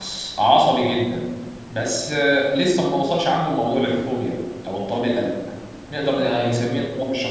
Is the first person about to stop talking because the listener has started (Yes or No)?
No